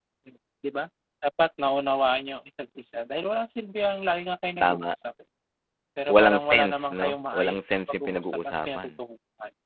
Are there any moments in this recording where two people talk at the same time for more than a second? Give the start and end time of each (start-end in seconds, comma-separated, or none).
6.1-8.9